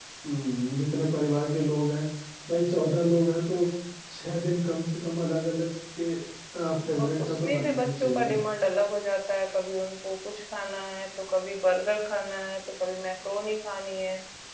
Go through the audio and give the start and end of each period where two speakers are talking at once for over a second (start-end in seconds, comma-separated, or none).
7.0-8.3